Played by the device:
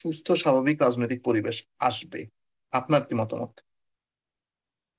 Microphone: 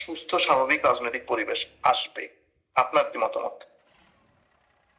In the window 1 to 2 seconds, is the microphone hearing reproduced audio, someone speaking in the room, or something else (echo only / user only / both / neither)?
echo only